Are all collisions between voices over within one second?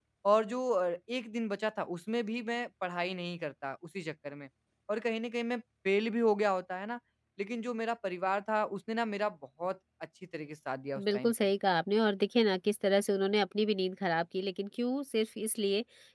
Yes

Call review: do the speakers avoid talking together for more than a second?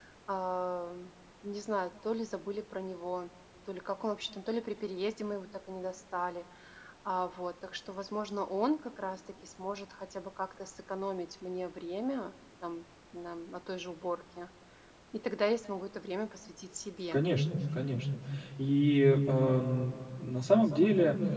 Yes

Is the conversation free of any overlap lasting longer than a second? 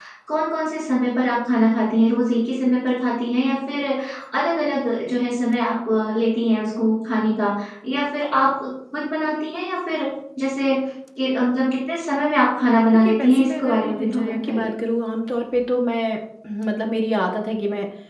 No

